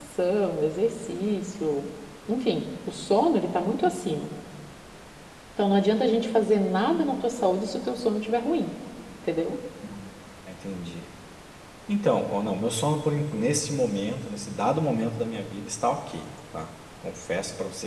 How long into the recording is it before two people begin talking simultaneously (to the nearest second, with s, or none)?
none